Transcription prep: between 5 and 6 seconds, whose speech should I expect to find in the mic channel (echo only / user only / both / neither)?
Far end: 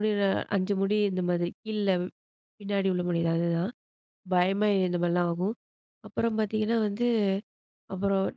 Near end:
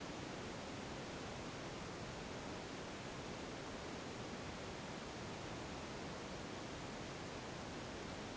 neither